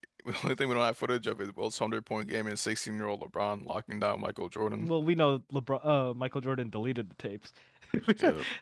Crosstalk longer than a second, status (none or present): none